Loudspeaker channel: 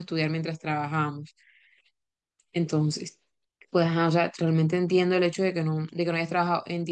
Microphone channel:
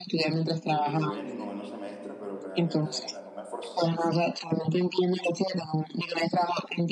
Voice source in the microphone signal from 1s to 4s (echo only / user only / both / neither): both